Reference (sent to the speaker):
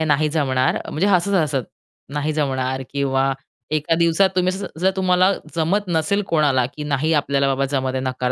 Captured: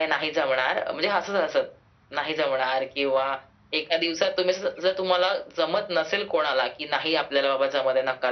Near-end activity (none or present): none